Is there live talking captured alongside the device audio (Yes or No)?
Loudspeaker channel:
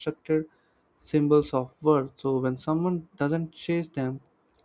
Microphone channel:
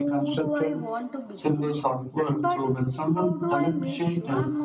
Yes